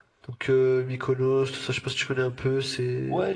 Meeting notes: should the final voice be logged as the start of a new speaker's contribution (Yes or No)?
Yes